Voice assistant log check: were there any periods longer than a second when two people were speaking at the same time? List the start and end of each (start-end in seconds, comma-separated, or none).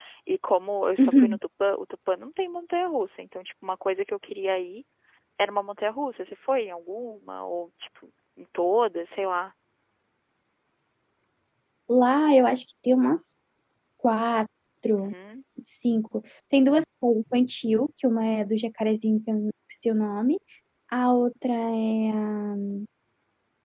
none